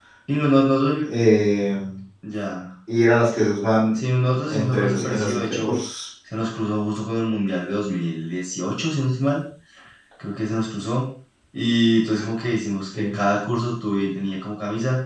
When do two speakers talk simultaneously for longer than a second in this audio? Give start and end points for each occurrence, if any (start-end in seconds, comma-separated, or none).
4.5-5.8